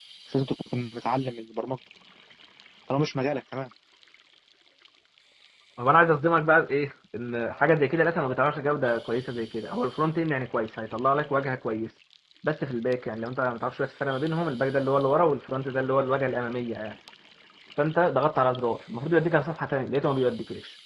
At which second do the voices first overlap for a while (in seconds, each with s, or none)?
none